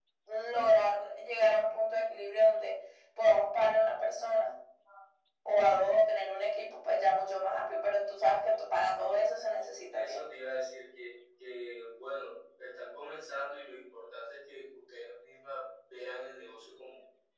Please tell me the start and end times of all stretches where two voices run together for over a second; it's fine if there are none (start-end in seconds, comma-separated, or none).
none